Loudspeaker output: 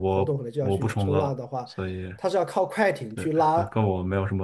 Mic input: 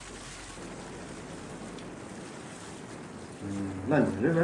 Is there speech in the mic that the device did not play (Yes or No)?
Yes